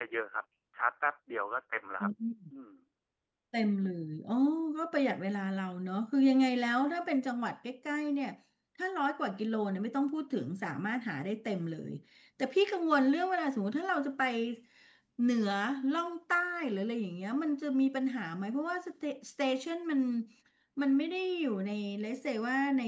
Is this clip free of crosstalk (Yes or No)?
Yes